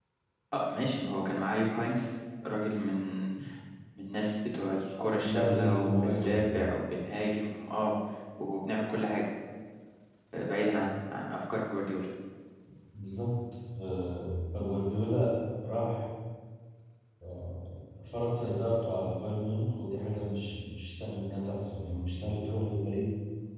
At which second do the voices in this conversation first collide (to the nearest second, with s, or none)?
5 s